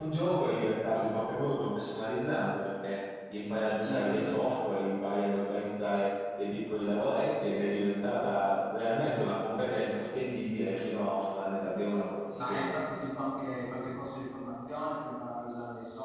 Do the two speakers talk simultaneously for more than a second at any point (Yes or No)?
No